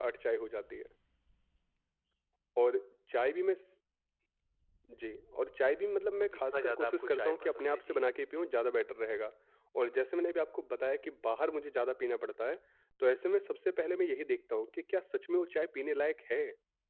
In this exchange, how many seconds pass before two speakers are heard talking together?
6.2 s

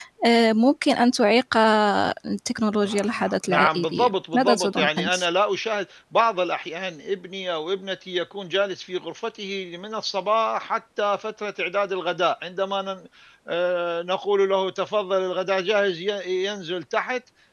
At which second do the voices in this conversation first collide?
2.8 s

